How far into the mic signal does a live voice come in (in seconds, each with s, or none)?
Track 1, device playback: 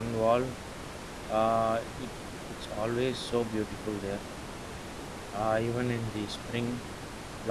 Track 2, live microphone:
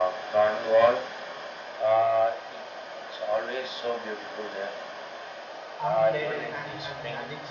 5.8 s